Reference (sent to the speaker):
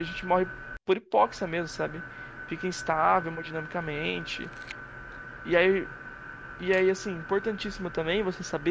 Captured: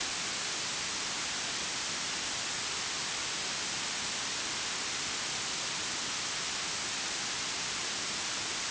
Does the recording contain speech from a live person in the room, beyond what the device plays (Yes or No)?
No